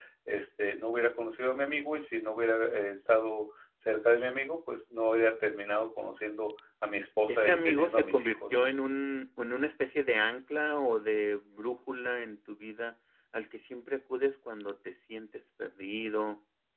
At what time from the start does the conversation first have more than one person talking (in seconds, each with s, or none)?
7.3 s